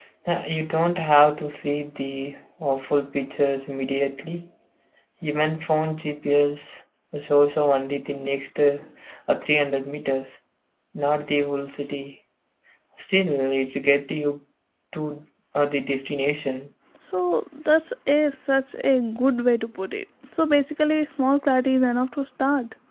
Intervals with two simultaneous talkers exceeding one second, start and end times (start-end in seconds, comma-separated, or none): none